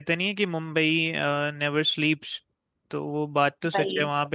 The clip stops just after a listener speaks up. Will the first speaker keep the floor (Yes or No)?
Yes